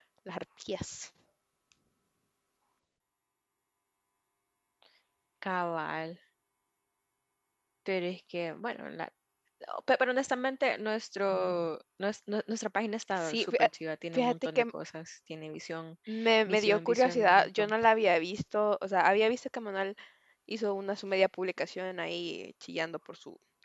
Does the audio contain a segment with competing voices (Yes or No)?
Yes